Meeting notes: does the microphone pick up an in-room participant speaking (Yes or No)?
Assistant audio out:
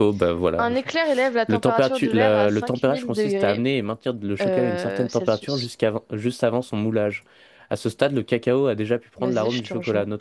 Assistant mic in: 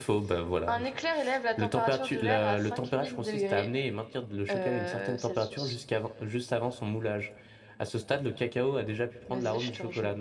No